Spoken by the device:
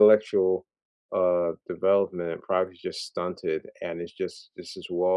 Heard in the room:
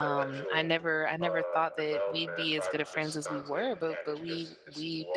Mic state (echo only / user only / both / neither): both